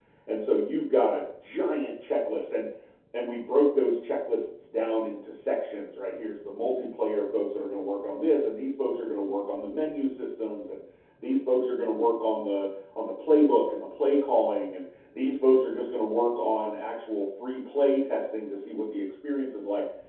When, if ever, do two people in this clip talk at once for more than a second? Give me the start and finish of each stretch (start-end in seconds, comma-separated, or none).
none